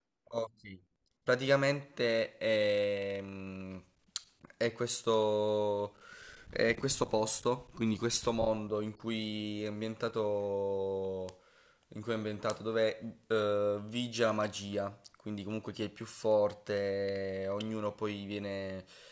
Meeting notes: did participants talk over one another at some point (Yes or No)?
No